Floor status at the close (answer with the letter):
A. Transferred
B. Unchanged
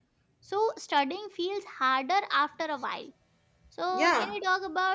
B